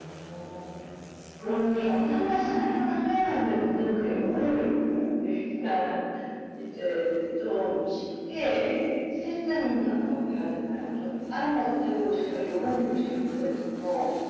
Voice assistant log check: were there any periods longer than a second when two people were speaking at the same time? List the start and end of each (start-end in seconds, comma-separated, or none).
1.4-2.8